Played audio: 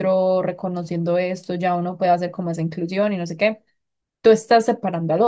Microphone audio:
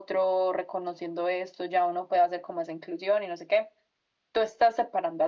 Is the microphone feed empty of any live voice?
Yes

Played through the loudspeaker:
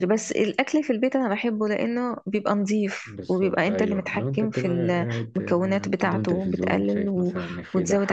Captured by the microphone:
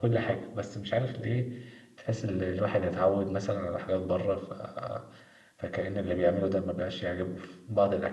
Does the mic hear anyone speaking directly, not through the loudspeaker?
Yes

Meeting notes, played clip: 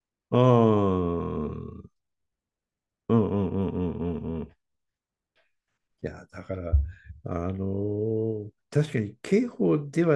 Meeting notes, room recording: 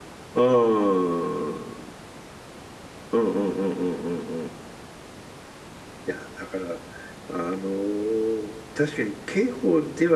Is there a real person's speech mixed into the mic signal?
No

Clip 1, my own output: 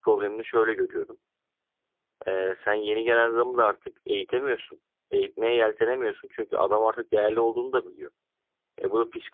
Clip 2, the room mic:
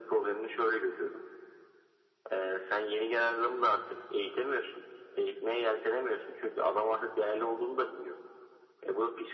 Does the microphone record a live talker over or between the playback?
No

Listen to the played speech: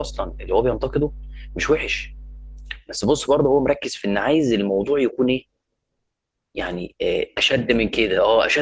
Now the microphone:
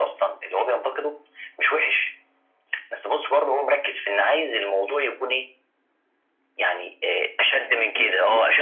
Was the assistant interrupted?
Yes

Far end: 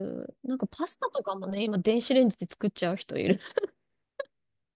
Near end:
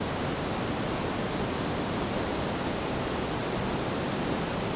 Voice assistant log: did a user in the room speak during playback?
No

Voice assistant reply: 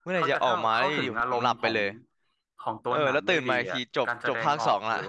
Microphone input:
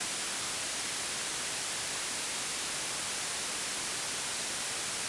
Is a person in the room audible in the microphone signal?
No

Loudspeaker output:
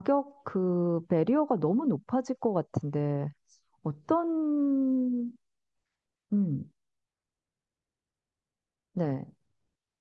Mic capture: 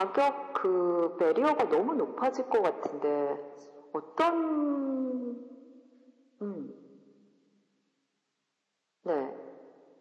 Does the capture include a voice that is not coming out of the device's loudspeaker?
No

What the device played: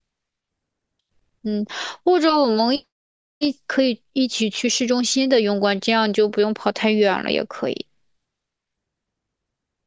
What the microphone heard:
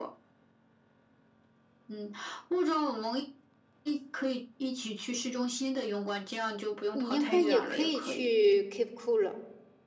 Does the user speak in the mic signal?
Yes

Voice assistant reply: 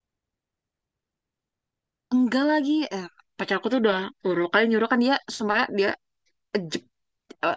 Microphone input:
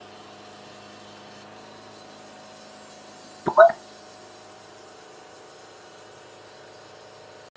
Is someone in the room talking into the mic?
Yes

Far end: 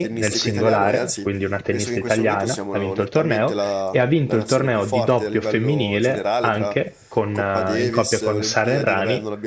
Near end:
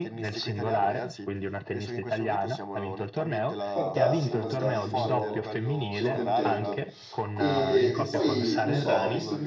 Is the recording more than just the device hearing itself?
Yes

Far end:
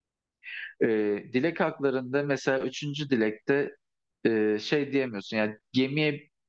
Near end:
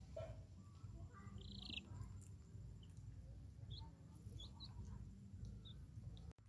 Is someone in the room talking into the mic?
No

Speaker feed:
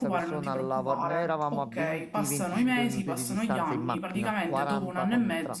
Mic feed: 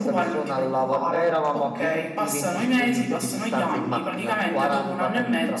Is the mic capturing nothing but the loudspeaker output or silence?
Yes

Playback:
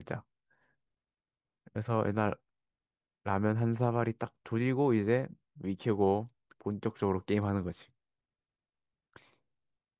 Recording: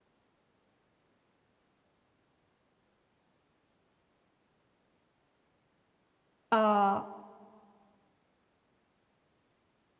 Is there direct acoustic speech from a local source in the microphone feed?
Yes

